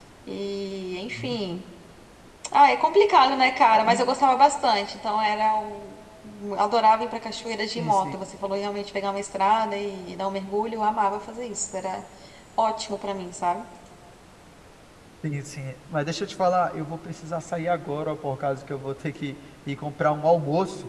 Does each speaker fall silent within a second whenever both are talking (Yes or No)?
Yes